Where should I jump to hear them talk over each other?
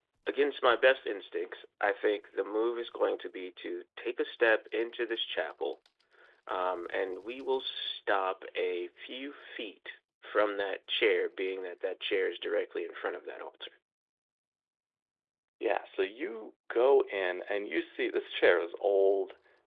none

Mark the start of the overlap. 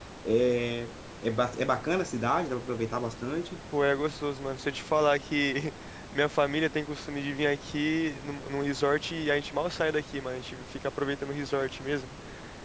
none

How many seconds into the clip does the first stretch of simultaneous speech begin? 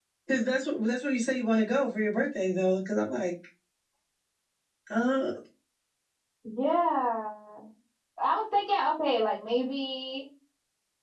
none

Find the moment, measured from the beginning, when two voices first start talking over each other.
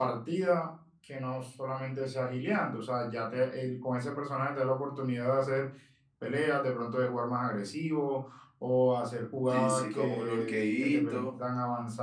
9.5 s

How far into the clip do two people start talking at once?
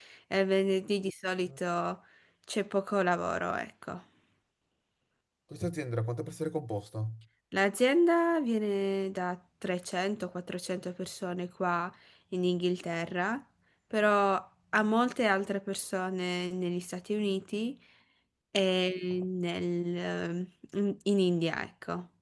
none

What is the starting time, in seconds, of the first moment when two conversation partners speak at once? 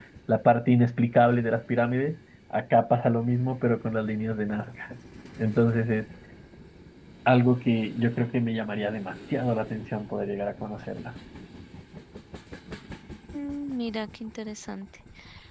none

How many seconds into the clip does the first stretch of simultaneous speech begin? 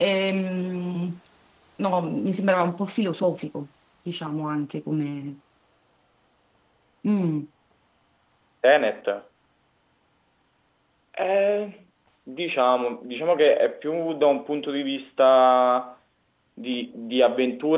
none

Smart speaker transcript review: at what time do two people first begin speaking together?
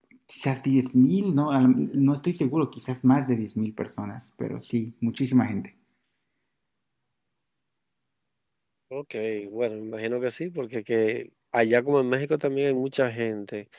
none

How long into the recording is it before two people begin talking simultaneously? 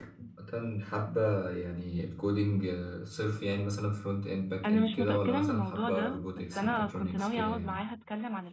4.6 s

